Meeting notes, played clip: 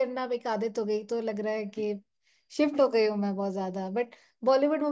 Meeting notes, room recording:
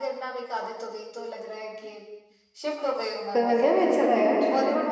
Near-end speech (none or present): present